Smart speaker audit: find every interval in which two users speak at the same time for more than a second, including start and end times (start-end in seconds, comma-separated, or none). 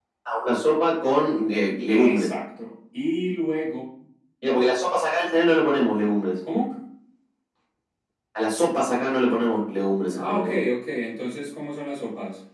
none